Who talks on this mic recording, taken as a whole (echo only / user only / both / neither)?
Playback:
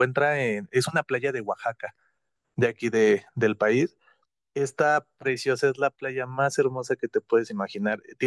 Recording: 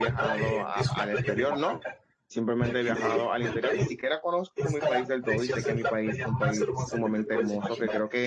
both